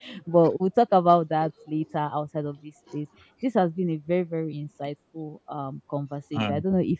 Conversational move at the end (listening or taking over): listening